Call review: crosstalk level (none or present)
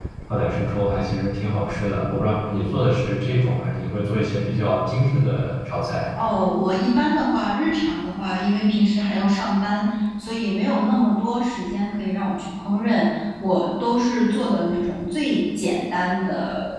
none